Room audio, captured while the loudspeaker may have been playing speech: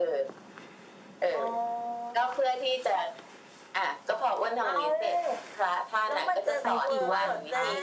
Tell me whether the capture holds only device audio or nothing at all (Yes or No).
No